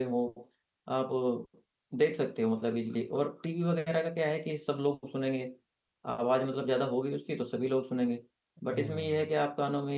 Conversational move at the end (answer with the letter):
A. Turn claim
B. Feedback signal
B